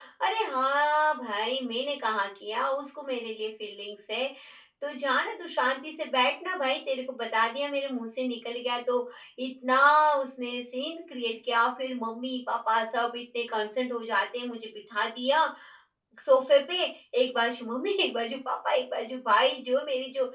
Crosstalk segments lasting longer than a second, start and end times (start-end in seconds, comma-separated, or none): none